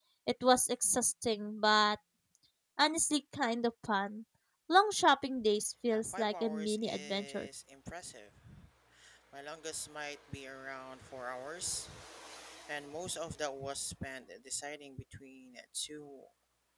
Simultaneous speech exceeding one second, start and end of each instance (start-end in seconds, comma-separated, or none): 5.9-7.5